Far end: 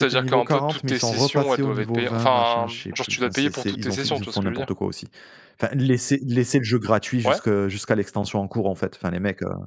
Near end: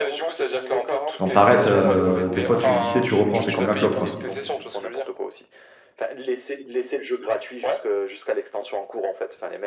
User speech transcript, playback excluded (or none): quand t'arrêtes, arrêtes, des fois, tu tu sais, tu reprends, c'est comme la clope, quoi.